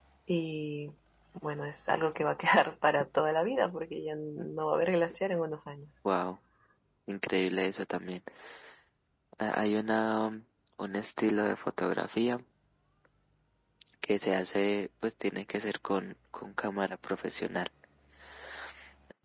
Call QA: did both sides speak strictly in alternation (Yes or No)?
Yes